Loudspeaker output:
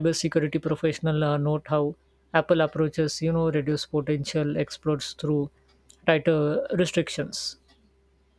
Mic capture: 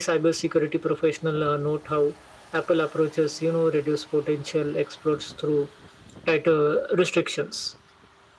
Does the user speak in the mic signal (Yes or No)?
No